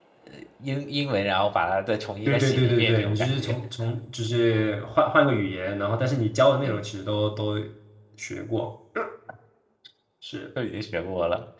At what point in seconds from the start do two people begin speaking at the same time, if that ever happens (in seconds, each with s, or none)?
2.3 s